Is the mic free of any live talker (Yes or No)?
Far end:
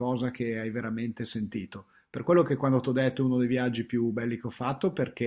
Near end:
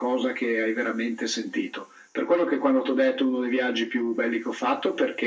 Yes